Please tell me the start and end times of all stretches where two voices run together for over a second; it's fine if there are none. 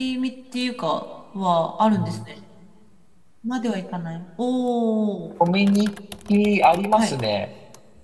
none

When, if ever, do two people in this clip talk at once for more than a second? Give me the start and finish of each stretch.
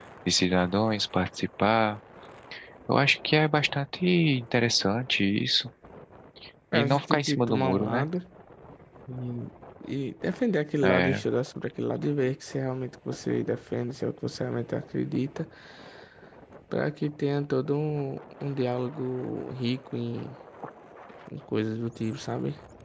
6.7-8.1

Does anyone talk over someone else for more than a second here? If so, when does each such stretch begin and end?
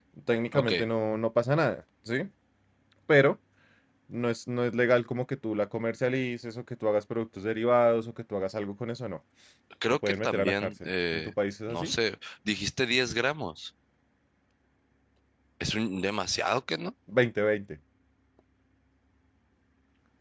9.9-11.3

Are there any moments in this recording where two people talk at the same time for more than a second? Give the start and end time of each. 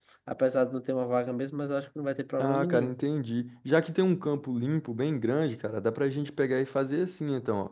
none

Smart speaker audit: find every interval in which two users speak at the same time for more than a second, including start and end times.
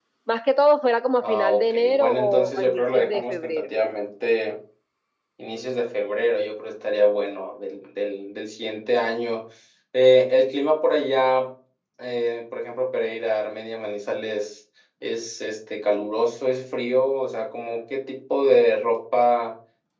1.2-3.7

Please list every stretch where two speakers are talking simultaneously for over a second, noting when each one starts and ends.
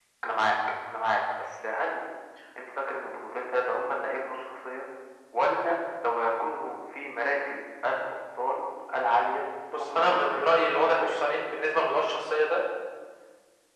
9.8-11.2

